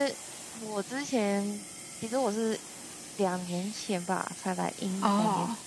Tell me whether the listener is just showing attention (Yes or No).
Yes